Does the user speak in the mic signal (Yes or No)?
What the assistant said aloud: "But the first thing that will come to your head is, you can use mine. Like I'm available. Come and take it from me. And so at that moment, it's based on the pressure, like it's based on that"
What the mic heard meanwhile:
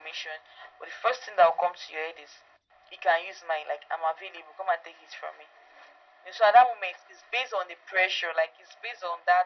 No